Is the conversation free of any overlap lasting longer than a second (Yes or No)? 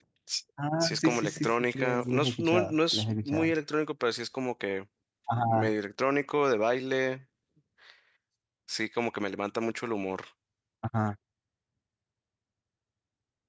No